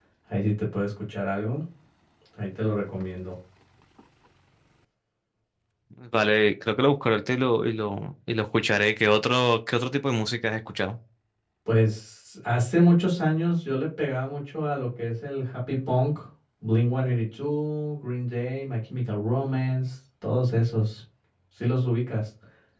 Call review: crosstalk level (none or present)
none